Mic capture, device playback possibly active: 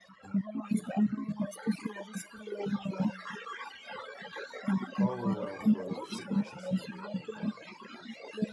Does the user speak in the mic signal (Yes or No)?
Yes